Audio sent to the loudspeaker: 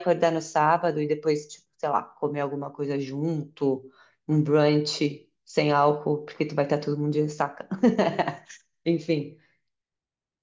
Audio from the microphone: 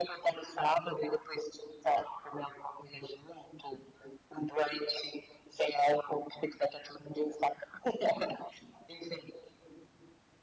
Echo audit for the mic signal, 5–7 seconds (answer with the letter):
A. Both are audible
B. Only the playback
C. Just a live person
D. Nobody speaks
B